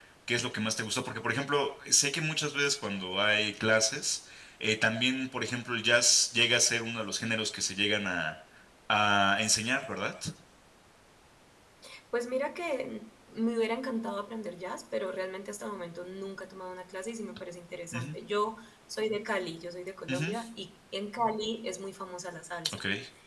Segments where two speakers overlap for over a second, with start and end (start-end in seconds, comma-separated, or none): none